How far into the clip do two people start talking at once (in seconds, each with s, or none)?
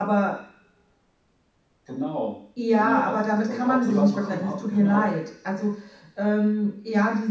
2.8 s